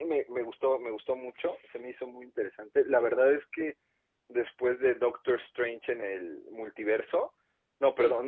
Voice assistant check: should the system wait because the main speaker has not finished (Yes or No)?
Yes